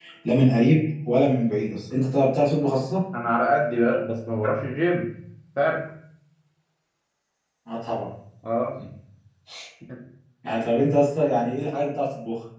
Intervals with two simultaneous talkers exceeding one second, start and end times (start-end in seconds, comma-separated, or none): none